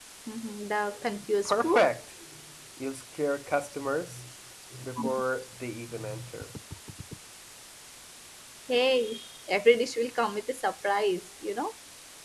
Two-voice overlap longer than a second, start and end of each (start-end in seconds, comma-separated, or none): none